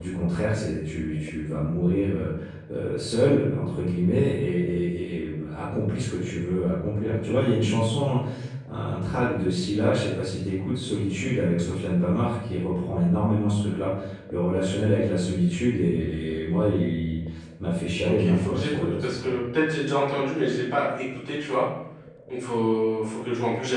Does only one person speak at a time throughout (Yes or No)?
No